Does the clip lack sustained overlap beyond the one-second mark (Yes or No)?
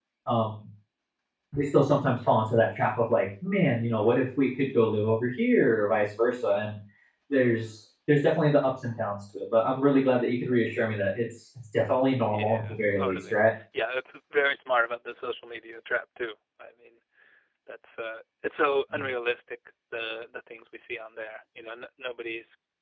No